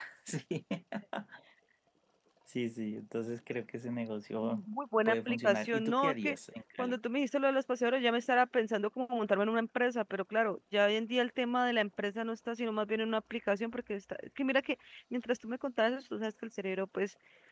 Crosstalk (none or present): present